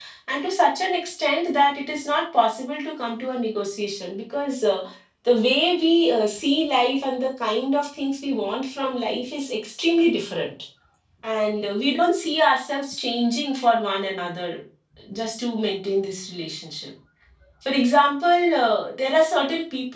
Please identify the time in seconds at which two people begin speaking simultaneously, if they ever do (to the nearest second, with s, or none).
none